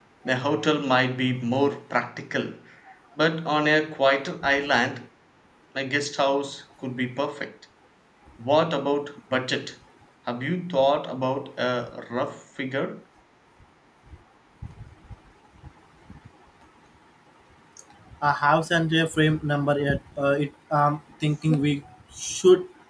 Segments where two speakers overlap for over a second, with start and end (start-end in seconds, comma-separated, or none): none